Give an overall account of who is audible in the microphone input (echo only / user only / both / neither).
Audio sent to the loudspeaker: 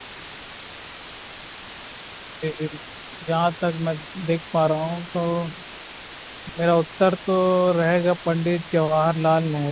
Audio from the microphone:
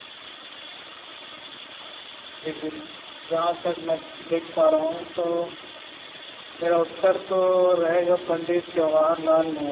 echo only